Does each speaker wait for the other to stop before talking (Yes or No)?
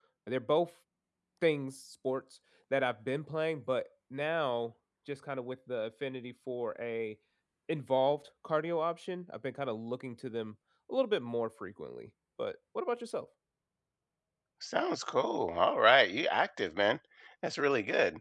Yes